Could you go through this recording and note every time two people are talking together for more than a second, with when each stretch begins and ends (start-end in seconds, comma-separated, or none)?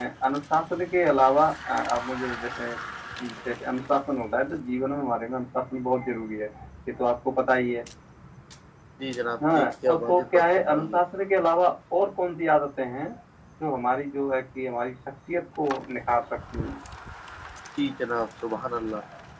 9.5-10.9